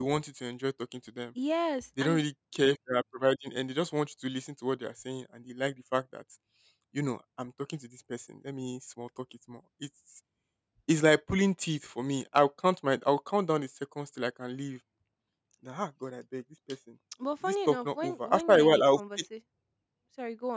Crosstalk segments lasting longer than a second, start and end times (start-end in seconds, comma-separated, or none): 17.4-19.0